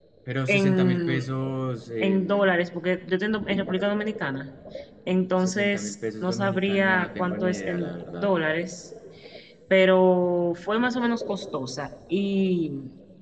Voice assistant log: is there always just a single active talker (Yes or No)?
No